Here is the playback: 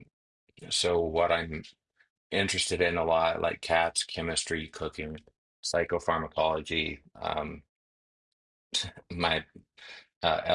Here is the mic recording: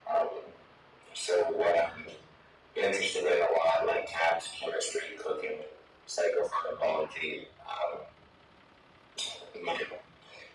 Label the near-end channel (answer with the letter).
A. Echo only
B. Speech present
A